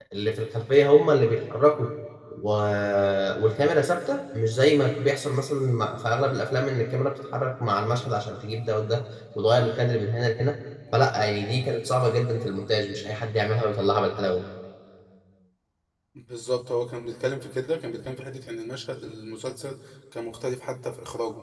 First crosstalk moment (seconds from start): none

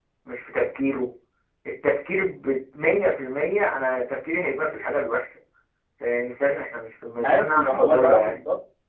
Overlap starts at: 7.2 s

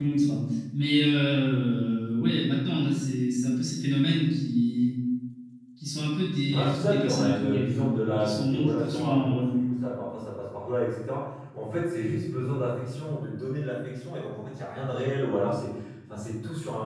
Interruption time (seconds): 6.5 s

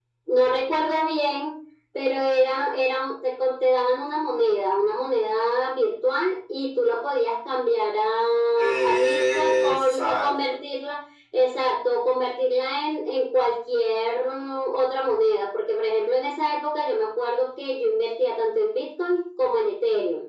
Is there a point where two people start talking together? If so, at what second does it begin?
8.6 s

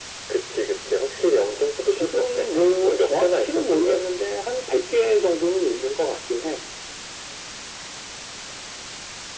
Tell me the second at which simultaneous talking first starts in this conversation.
1.9 s

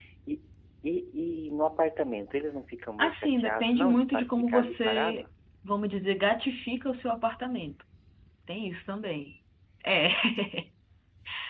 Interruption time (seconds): 3.0 s

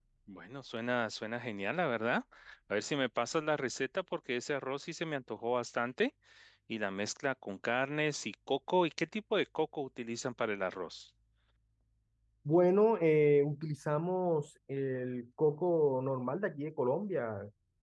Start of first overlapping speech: none

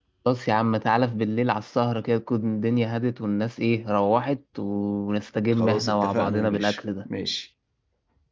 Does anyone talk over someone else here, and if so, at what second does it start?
5.5 s

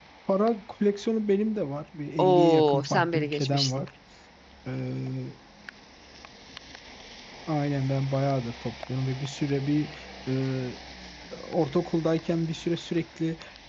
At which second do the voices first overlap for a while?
2.2 s

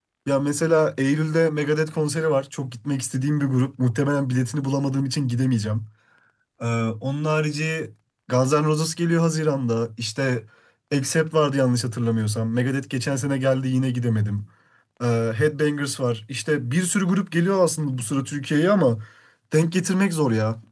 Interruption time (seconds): none

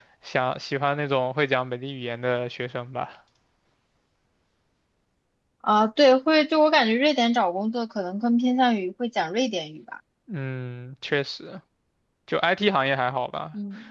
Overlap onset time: none

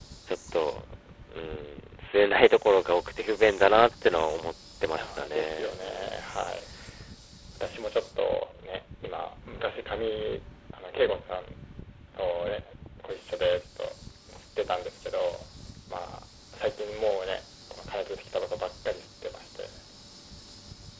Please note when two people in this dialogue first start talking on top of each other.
5.0 s

